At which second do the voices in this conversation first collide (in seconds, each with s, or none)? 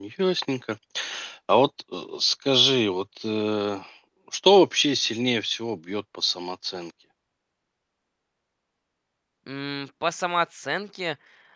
none